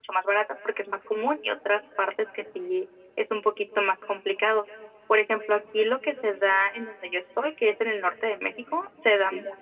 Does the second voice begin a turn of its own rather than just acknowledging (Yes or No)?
No